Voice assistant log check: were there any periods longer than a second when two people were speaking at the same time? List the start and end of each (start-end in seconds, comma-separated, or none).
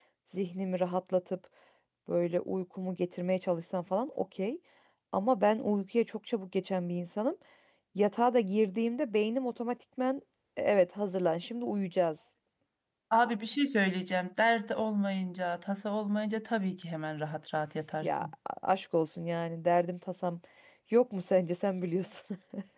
none